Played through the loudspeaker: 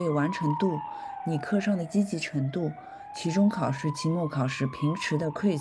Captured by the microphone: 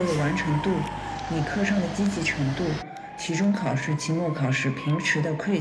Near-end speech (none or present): none